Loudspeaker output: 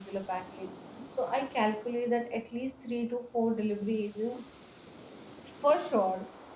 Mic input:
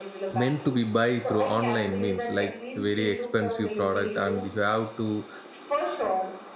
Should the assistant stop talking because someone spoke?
Yes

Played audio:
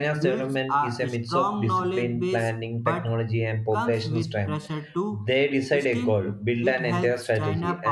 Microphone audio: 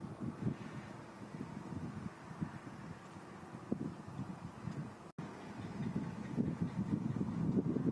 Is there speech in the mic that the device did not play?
No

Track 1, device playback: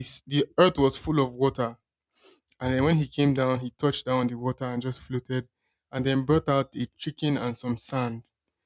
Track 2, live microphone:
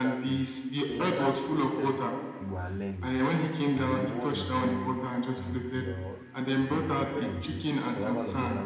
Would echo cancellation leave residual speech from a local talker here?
Yes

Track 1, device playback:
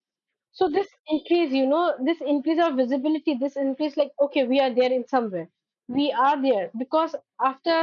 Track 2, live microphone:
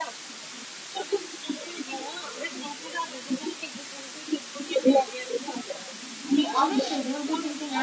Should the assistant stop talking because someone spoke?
Yes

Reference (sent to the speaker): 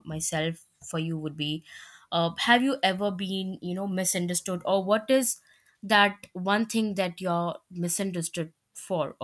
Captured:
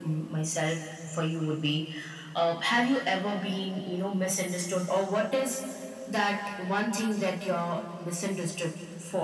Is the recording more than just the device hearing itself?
No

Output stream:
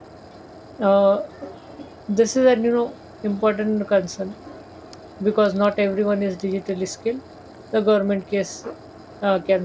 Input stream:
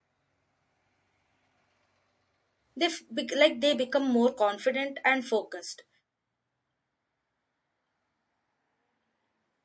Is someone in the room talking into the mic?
Yes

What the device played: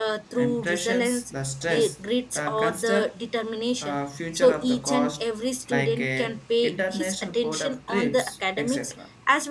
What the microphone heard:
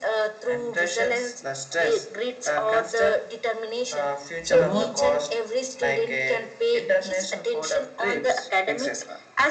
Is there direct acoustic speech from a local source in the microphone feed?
Yes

